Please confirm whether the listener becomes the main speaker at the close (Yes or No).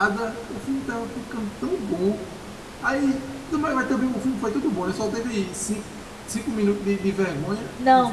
Yes